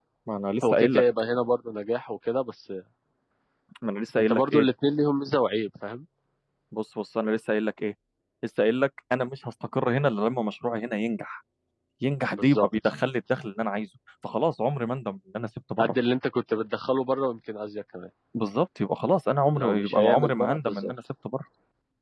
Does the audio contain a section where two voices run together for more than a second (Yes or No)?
Yes